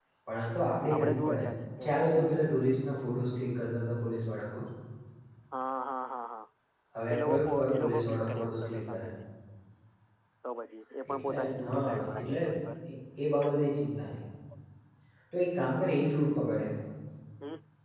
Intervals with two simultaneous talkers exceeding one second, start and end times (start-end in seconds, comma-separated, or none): 7.1-9.1, 11.1-12.4